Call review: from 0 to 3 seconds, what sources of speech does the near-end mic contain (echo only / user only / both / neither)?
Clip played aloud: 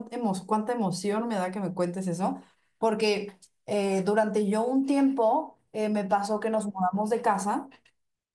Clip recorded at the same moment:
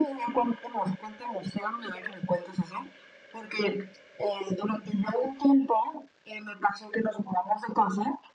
echo only